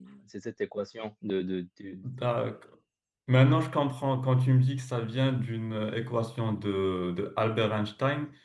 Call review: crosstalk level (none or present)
none